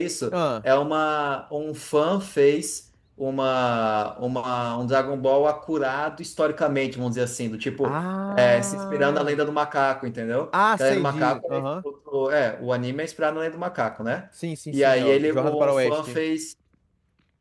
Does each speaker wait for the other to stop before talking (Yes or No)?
No